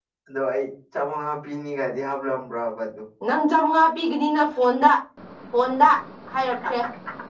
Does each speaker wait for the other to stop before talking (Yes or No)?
Yes